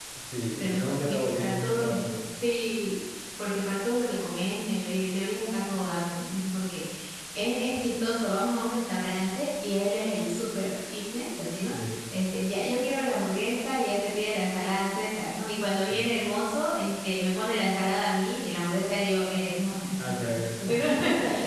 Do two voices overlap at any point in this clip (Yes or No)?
Yes